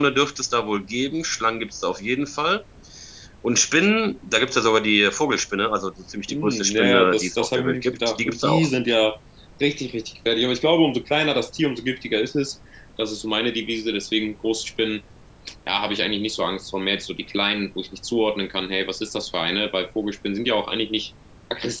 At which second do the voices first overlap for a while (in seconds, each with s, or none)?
6.3 s